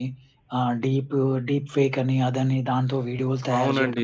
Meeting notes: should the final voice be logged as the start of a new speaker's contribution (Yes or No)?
Yes